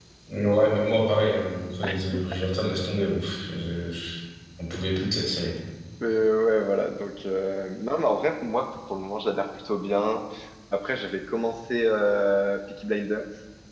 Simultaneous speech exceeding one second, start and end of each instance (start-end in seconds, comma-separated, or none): none